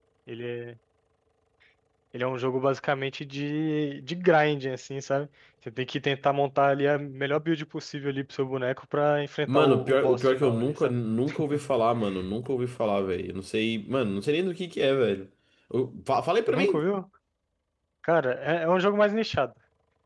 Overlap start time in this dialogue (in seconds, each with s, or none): 9.5 s